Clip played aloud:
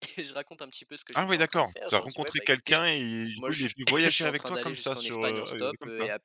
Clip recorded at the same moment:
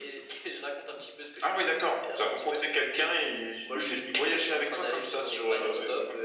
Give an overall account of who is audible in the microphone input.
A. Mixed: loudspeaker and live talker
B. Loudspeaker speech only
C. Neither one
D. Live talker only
B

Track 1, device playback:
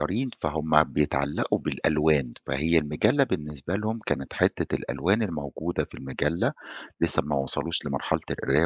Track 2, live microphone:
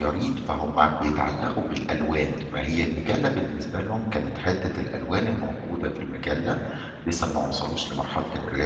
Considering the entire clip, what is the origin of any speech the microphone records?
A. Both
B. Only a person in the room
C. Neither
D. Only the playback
D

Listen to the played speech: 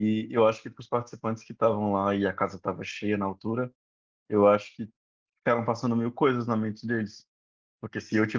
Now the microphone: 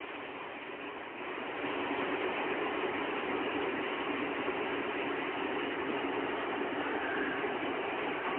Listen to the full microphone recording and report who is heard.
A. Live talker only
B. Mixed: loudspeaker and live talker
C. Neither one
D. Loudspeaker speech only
C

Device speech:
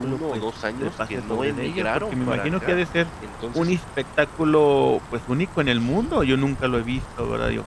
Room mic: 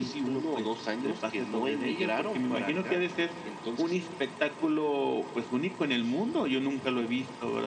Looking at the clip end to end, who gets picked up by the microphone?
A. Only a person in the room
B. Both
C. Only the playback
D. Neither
C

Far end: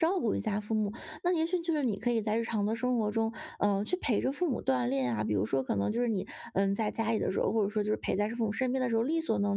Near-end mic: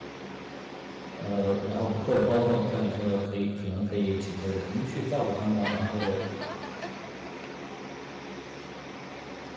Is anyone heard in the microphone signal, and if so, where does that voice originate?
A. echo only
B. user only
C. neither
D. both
B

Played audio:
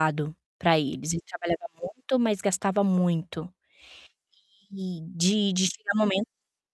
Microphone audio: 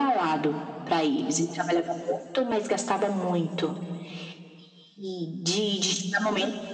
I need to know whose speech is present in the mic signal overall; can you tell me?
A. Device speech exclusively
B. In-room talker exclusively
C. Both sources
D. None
A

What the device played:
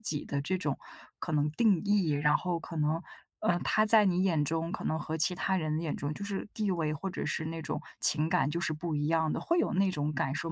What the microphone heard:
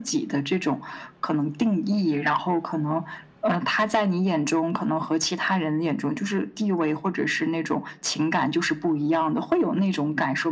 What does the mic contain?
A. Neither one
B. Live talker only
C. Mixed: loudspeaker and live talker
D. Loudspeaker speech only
D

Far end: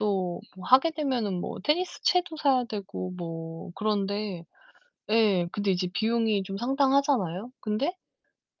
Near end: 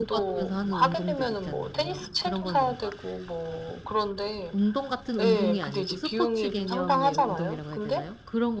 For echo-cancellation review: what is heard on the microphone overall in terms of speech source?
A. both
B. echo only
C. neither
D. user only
A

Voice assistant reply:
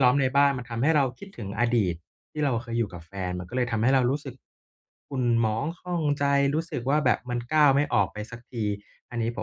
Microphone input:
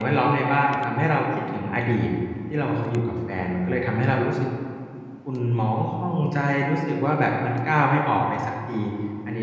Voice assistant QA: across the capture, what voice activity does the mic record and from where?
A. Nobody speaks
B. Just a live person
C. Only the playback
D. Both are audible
C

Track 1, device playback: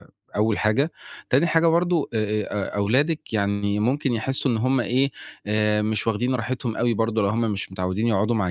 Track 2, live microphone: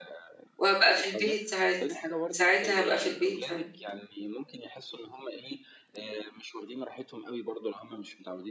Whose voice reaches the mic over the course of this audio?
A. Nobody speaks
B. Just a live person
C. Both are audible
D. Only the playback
C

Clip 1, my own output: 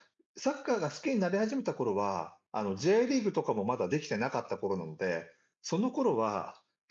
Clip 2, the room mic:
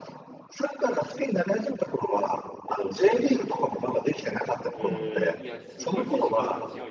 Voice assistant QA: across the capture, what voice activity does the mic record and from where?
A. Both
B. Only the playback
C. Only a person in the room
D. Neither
A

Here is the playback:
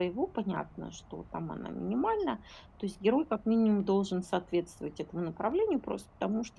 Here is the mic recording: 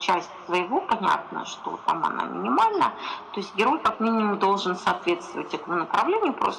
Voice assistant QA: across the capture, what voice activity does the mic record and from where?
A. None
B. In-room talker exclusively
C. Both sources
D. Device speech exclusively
D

